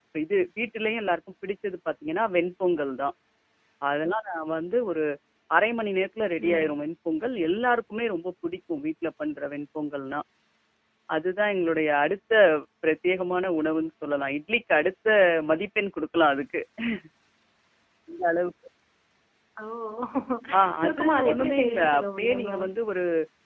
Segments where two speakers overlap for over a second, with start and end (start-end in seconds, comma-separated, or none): 20.8-22.6